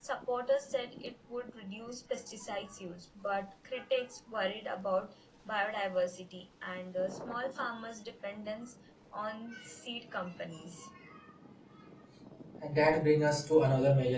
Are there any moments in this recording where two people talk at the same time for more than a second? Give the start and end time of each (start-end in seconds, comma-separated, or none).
none